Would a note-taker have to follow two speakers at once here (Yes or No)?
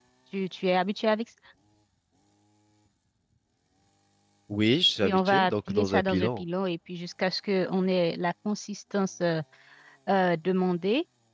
Yes